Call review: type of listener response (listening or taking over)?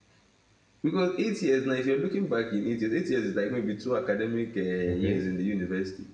listening